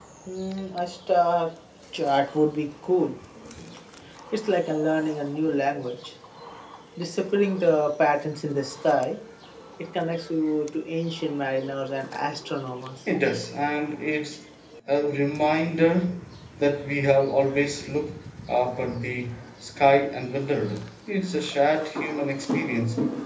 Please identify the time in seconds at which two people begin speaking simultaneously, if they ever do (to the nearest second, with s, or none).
none